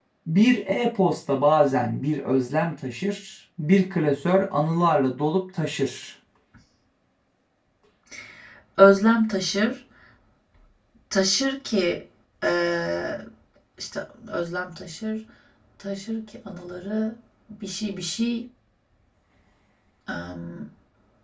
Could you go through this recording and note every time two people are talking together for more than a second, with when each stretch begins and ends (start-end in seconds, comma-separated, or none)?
none